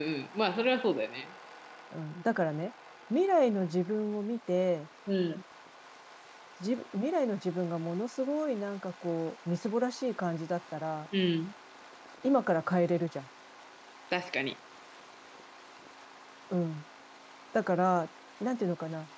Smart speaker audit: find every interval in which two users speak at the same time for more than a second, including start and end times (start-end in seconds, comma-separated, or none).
none